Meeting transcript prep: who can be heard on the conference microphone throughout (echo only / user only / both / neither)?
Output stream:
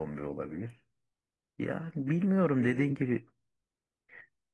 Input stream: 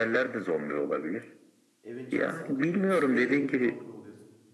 both